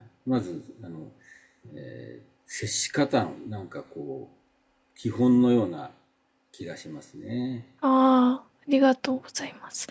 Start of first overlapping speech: none

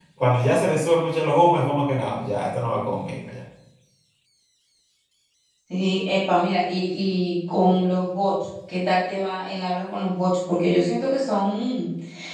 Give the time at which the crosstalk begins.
none

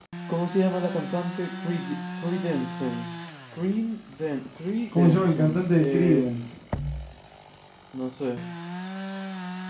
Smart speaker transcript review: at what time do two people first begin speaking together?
5 s

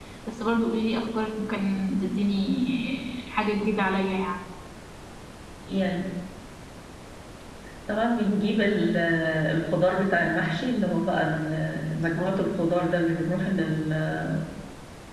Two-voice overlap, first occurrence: none

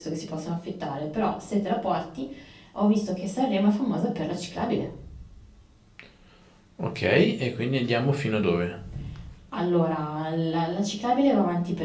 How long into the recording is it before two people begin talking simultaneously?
none

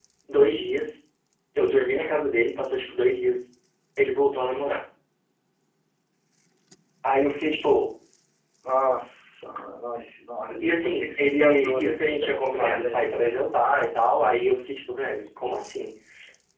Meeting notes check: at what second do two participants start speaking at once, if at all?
11 s

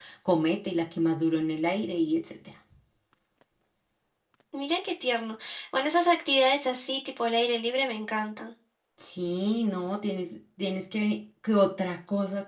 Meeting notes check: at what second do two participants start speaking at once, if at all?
none

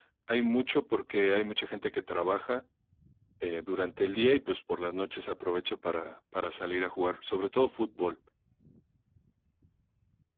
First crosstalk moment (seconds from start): none

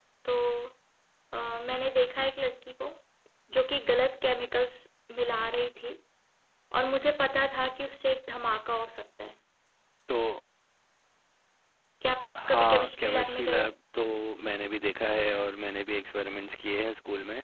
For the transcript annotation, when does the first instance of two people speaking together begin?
12 s

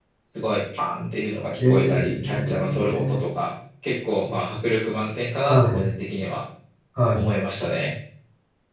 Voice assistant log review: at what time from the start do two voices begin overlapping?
2 s

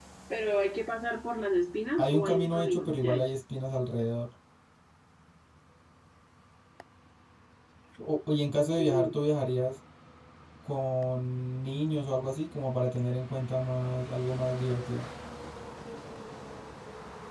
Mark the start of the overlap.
2 s

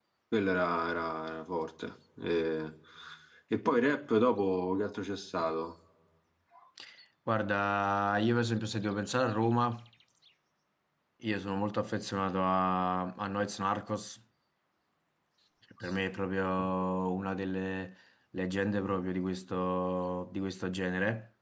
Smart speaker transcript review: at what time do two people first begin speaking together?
none

